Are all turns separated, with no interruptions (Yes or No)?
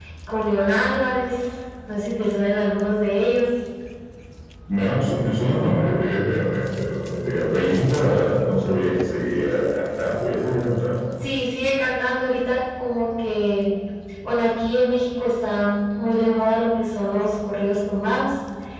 Yes